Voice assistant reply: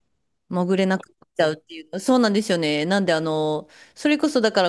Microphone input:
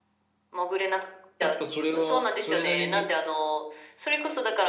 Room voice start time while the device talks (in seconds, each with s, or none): 1.4 s